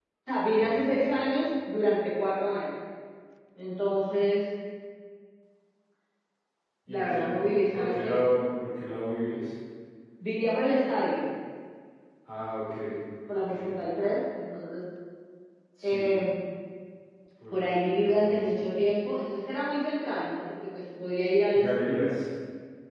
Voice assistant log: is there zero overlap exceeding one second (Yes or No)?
No